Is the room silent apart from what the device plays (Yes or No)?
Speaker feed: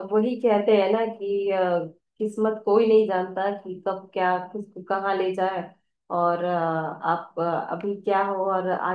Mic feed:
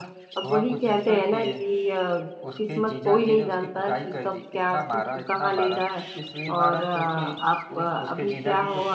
No